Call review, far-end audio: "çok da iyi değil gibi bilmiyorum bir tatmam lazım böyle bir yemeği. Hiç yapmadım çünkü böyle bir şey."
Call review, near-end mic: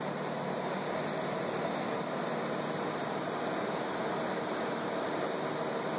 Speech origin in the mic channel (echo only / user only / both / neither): neither